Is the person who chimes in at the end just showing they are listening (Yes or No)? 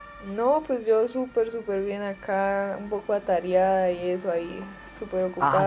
No